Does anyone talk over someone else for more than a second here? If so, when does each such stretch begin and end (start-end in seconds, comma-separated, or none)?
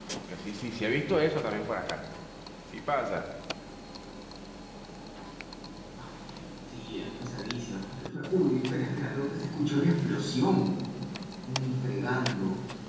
none